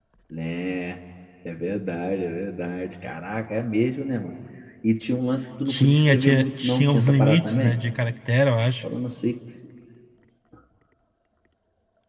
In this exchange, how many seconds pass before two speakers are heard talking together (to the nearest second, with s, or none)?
6 s